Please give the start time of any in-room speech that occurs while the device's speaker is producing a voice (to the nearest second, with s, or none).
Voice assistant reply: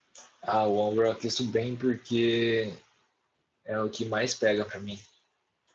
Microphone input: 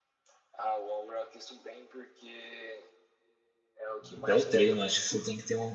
4 s